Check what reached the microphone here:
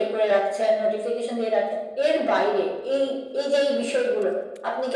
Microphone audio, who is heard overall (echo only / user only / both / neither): echo only